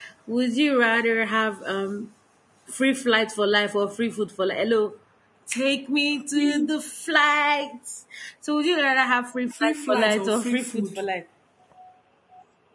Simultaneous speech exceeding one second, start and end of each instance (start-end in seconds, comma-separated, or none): 9.5-11.0